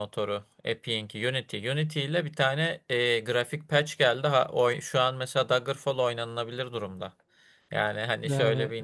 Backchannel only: Yes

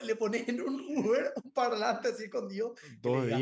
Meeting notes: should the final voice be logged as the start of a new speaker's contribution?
Yes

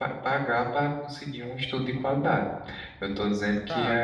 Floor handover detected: Yes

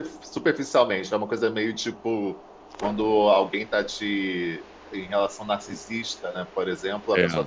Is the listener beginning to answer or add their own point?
No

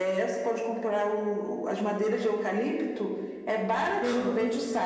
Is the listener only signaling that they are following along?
Yes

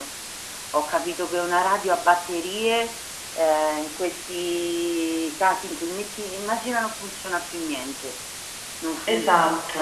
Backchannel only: Yes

